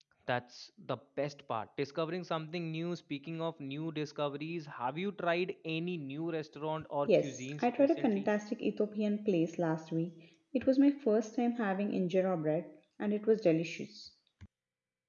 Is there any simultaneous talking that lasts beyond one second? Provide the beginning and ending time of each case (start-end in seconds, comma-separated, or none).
7.1-8.3